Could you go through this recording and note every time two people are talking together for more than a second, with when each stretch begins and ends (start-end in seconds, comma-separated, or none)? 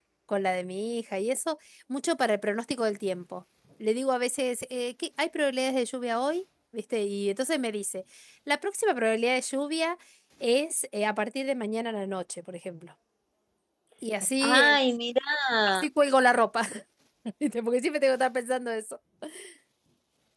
none